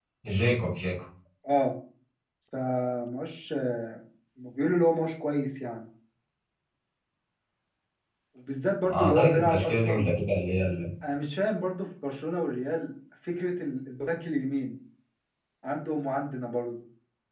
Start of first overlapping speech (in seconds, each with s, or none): 8.9 s